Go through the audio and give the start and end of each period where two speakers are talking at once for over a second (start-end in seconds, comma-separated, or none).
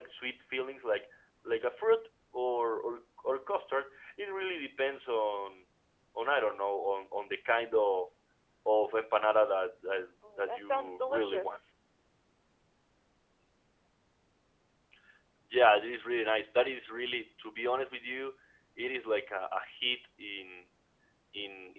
10.4-11.6